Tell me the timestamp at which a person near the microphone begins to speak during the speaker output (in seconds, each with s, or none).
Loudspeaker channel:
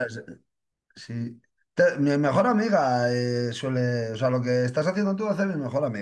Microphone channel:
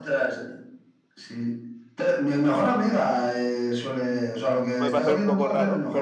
4.8 s